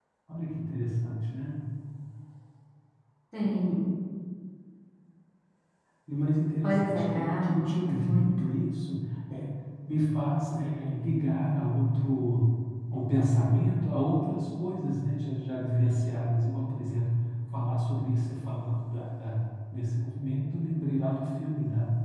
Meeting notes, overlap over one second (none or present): present